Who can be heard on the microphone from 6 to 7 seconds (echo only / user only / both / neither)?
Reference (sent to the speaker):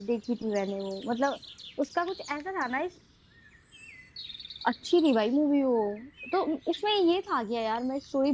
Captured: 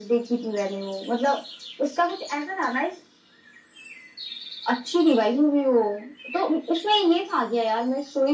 echo only